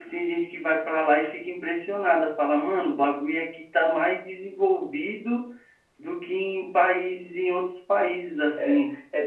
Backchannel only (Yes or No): No